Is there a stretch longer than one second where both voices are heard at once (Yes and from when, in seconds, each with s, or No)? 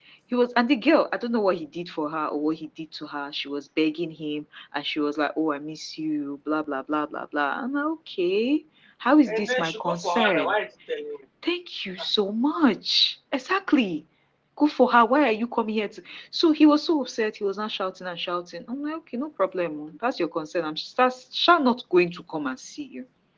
Yes, from 9.3 s